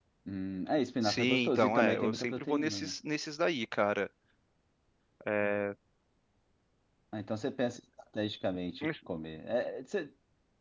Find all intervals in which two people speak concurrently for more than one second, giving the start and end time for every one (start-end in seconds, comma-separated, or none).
1.0-2.9